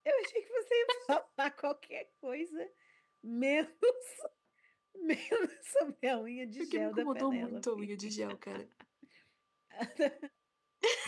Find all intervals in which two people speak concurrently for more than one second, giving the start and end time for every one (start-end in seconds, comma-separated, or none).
6.6-7.8